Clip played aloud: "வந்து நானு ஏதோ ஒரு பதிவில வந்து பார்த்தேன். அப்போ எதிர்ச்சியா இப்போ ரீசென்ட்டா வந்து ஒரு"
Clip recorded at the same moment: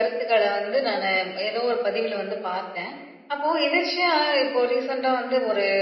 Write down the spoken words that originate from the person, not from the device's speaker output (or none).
none